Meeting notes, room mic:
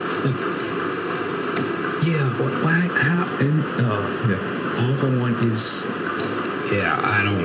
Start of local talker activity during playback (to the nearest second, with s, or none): none